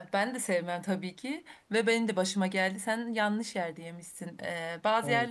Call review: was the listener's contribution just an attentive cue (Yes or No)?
Yes